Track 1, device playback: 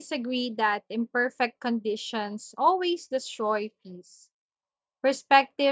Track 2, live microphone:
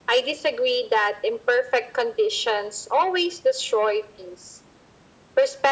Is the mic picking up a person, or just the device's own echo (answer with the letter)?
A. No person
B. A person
A